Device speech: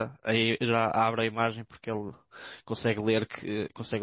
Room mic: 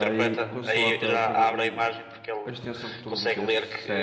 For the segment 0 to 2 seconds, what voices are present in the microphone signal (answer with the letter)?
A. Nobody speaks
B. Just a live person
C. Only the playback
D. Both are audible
D